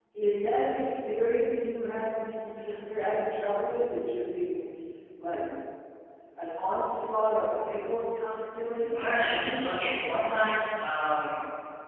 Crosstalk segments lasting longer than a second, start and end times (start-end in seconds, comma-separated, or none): none